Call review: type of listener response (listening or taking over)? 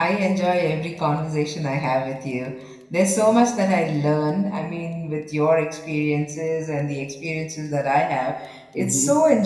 listening